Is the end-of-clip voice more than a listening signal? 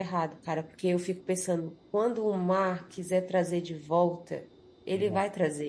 No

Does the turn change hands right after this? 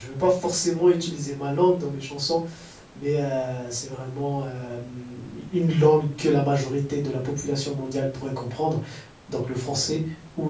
No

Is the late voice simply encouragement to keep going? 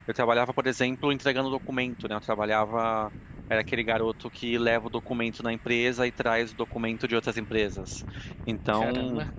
Yes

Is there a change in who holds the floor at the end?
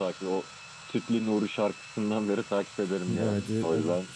Yes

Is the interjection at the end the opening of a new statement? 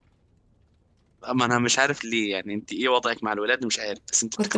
Yes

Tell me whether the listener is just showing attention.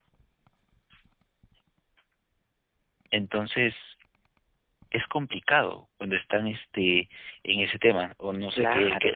No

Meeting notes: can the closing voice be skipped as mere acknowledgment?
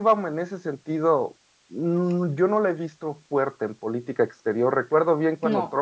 Yes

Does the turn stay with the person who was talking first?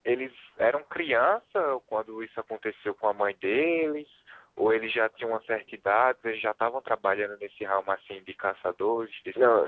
No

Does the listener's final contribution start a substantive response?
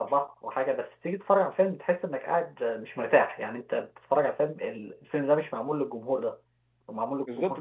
Yes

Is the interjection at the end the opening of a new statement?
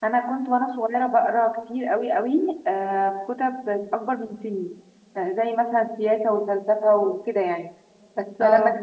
No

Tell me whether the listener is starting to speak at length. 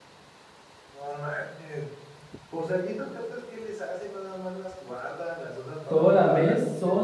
Yes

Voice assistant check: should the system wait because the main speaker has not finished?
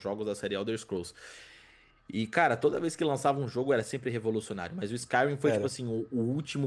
Yes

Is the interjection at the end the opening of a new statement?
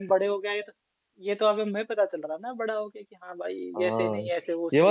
Yes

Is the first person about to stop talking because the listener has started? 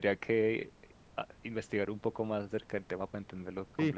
Yes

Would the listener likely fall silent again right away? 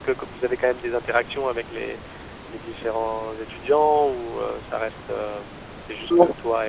Yes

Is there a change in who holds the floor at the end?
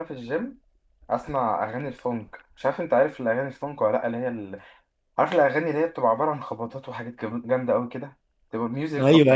Yes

